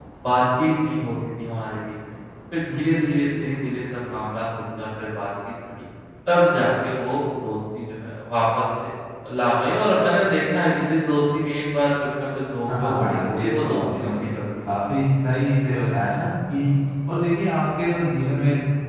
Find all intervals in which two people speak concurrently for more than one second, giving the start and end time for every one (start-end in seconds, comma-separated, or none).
12.7-14.1